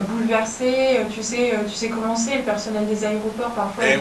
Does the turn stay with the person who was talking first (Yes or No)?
No